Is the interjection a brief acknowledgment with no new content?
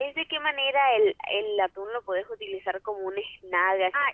No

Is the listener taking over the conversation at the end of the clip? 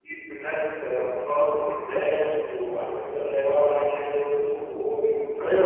Yes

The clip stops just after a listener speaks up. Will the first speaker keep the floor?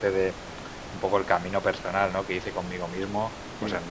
Yes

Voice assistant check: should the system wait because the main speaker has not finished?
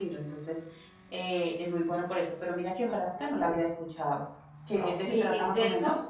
No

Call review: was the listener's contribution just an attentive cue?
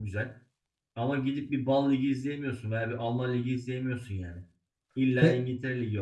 Yes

